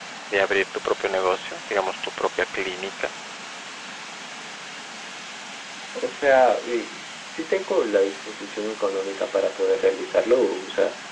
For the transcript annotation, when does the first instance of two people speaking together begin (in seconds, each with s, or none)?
none